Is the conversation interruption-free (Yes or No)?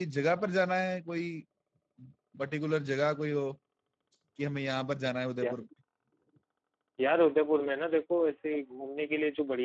Yes